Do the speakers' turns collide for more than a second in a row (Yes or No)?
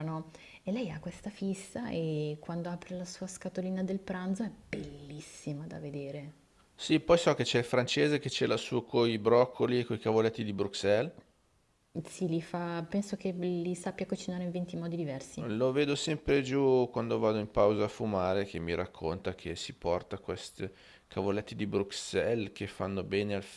No